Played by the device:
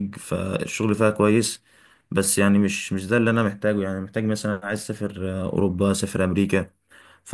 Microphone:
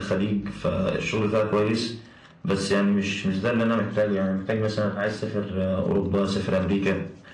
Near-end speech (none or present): none